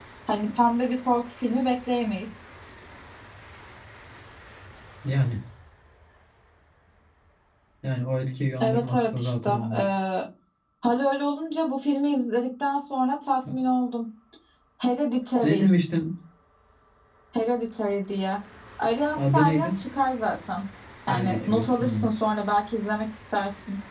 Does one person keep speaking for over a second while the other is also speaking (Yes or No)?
Yes